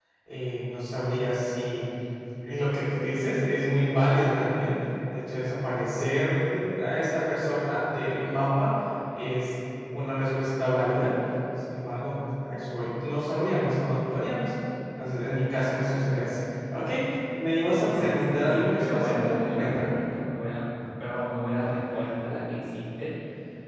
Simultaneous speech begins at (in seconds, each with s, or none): 17.7 s